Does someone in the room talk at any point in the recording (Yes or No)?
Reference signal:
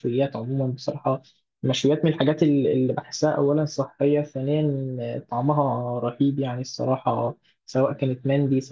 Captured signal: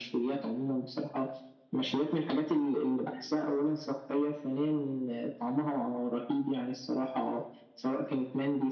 No